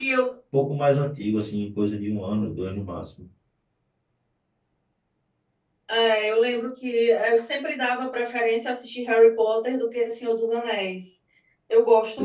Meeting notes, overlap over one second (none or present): none